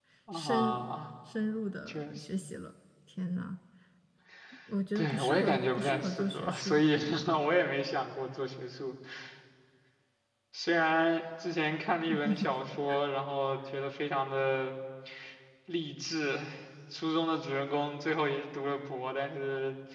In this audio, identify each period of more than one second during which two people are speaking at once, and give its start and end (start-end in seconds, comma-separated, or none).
5.0-6.8